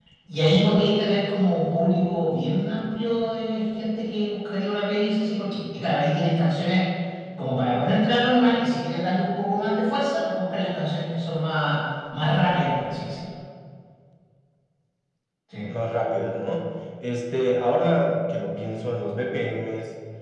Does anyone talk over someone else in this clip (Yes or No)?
No